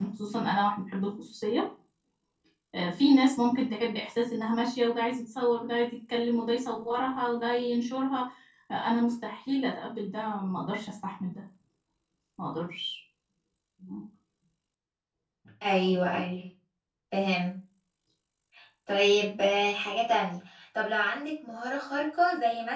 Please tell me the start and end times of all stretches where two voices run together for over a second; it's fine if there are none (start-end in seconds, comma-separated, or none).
none